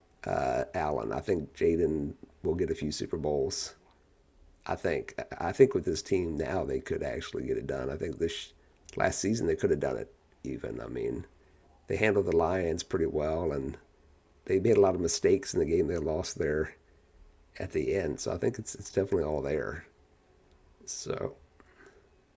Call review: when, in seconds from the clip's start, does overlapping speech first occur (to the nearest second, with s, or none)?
none